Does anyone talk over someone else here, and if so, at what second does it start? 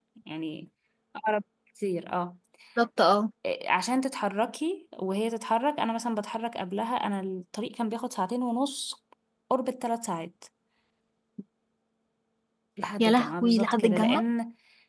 13.0 s

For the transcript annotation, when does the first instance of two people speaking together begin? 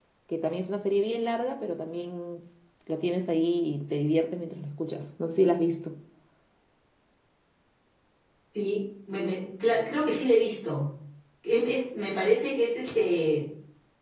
none

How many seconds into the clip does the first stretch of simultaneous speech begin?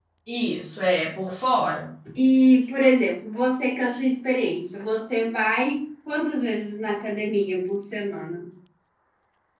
none

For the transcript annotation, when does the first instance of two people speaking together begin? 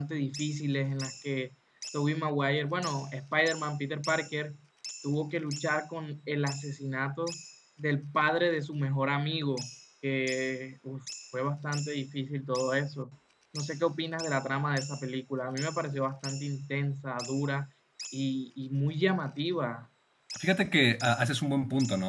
none

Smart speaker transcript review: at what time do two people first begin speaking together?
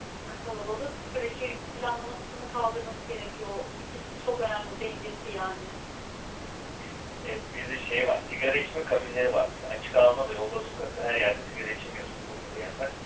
none

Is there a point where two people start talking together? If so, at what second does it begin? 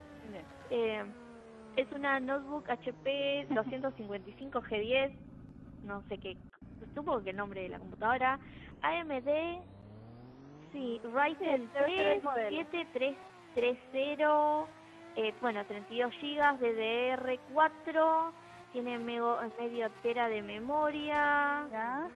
11.4 s

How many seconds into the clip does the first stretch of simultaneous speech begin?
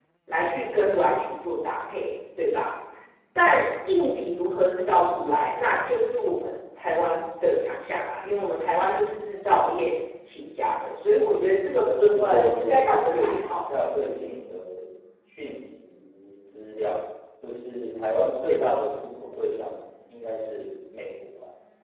11.8 s

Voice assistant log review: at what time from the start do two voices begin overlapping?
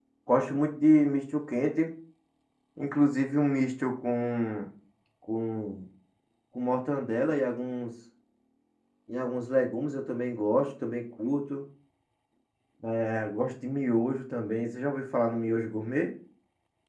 none

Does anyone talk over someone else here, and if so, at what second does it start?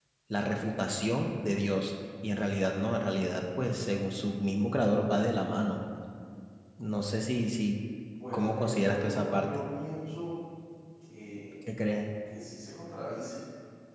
8.3 s

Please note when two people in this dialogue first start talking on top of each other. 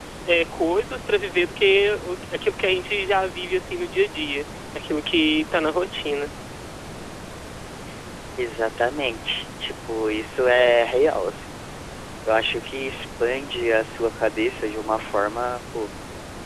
none

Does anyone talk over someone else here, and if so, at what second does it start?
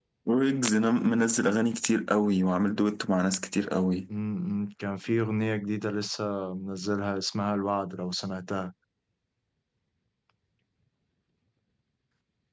none

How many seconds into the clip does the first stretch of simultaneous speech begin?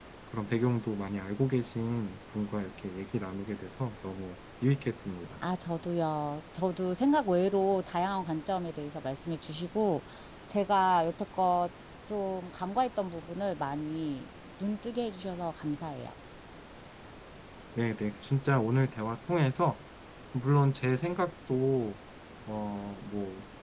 none

